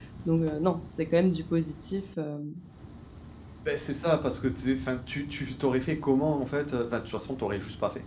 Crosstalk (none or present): none